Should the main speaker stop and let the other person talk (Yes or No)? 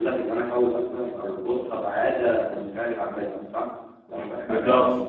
No